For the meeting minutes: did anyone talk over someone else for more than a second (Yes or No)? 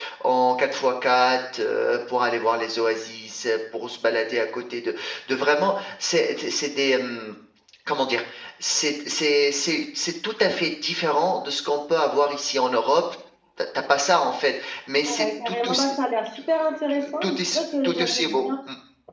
Yes